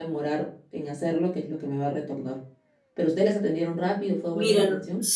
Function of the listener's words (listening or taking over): taking over